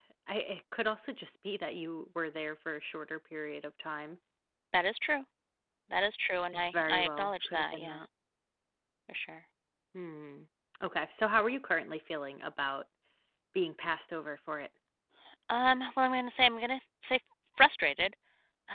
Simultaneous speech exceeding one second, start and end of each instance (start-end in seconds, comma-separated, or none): 6.5-8.0